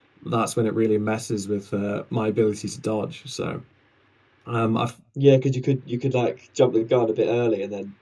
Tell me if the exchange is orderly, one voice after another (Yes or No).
Yes